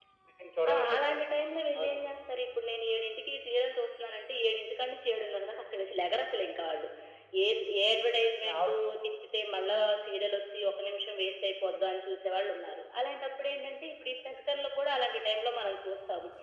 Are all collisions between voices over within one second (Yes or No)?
Yes